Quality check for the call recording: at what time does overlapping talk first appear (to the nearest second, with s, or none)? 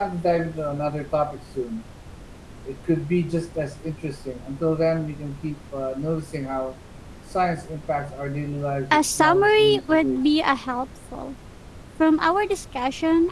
9 s